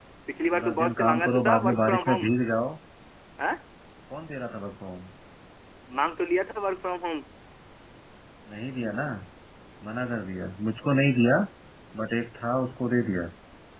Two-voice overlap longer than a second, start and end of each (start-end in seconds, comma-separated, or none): 0.5-2.3